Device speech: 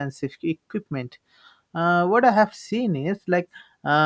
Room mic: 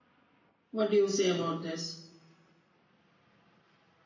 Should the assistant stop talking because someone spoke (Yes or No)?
Yes